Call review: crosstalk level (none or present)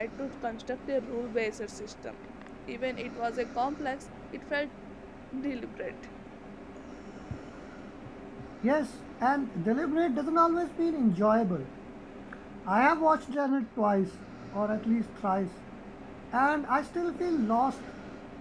none